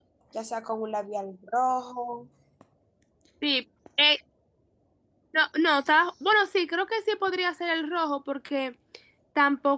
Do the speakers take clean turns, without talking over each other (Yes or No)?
Yes